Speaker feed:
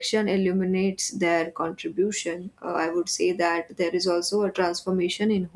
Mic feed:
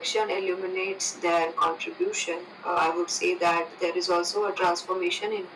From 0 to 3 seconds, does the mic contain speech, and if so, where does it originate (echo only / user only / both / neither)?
echo only